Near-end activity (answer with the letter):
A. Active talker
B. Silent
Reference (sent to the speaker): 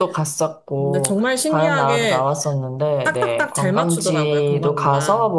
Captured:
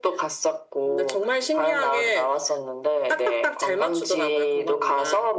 B